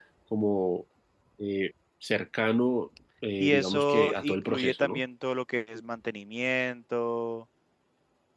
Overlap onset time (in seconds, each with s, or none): 3.4 s